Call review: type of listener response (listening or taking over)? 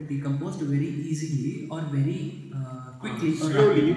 taking over